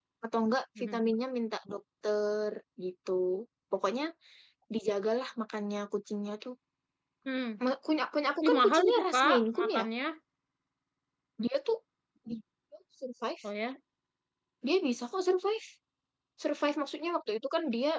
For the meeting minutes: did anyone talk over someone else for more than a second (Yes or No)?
Yes